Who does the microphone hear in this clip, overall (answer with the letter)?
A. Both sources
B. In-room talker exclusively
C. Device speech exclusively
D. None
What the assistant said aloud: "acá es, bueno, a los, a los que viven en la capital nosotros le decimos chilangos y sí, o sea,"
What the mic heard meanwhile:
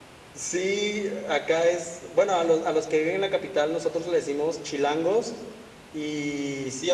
C